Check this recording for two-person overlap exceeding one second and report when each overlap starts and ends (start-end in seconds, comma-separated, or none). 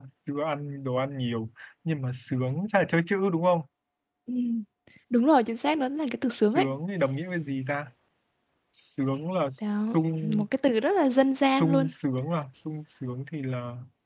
none